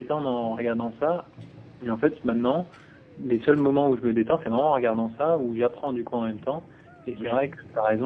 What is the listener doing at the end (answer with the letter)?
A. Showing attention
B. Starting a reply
A